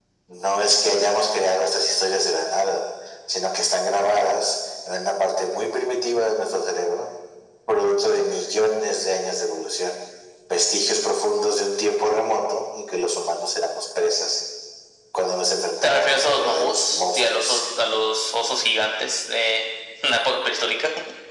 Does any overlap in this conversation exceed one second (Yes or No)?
Yes